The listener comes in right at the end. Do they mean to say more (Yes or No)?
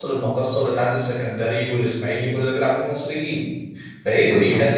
No